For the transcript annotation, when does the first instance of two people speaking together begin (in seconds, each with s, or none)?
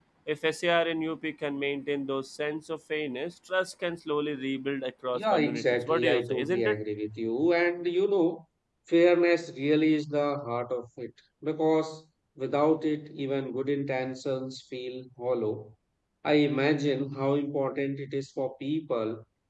5.1 s